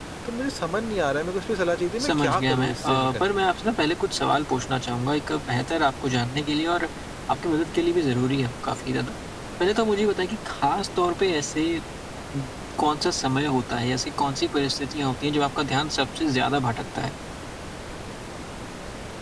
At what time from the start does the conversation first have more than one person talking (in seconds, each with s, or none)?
2.0 s